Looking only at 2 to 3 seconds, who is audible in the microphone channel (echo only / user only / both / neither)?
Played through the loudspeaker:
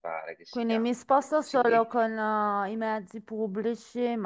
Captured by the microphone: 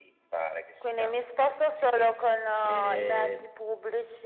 both